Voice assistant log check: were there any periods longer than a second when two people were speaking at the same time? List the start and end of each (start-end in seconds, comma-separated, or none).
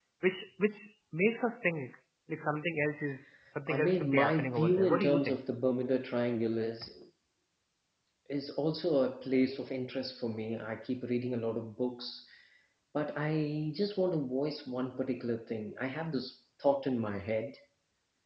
3.7-5.4